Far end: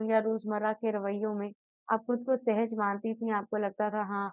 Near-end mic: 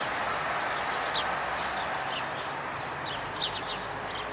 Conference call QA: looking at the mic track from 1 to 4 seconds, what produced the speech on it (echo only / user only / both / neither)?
neither